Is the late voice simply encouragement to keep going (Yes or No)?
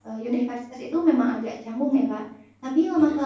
Yes